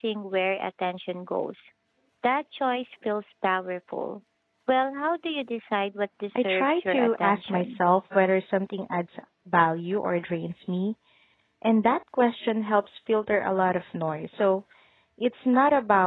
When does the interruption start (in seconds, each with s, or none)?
6.3 s